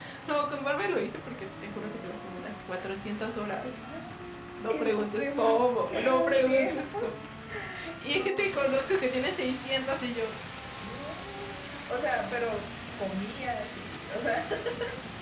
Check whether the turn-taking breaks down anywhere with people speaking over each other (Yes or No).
Yes